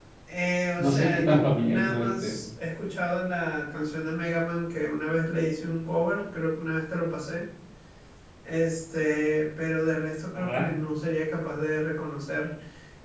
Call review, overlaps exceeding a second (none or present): present